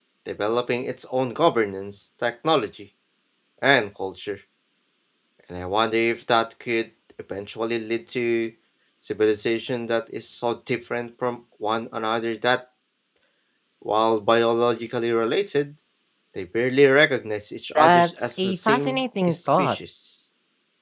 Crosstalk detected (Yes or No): Yes